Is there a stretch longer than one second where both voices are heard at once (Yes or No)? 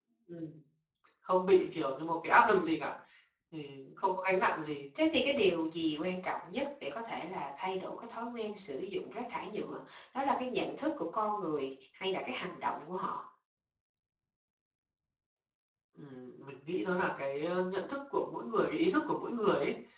No